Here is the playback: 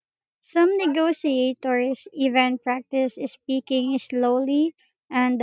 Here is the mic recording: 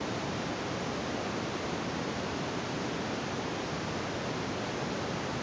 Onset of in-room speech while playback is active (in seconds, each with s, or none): none